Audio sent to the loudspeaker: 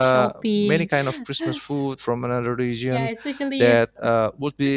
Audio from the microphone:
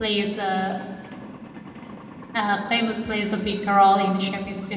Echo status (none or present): none